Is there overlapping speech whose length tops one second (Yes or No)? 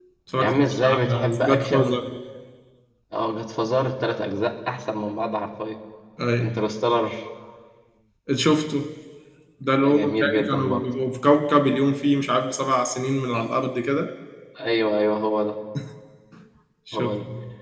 Yes